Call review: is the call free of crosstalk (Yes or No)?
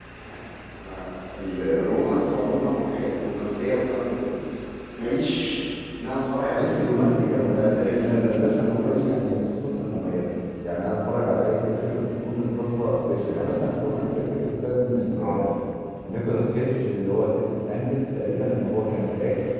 No